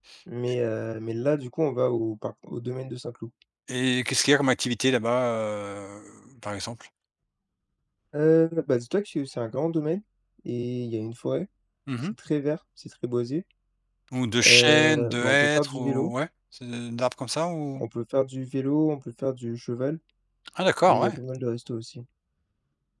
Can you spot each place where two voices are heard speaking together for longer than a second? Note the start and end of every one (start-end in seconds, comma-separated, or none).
14.4-16.1